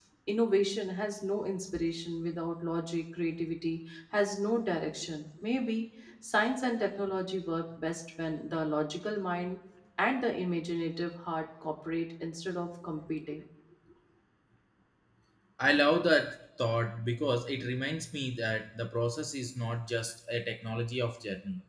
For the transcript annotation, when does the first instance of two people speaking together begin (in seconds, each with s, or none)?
none